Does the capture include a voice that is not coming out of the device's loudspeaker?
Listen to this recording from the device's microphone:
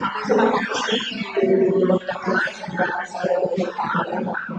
Yes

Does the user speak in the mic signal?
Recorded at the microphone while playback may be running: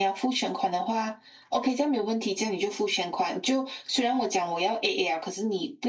No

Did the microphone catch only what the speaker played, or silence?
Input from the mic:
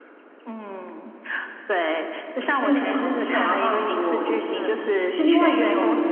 No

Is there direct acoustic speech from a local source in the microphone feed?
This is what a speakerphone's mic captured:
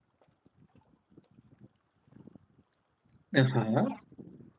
Yes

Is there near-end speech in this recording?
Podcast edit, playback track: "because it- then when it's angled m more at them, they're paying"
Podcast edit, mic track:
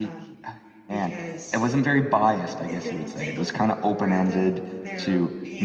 Yes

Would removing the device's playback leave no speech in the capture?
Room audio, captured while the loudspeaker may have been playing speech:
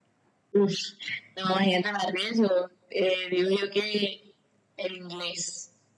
Yes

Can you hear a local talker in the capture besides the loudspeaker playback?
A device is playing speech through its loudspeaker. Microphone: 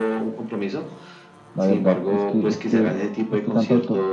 Yes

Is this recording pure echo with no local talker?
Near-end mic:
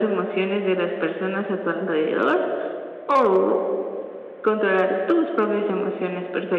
Yes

